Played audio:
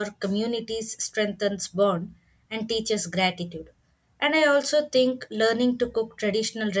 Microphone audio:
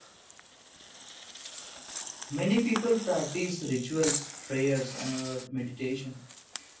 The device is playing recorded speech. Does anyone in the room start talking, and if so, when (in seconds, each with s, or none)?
2.3 s